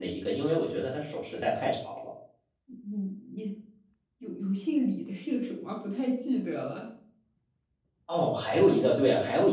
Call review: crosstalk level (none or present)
none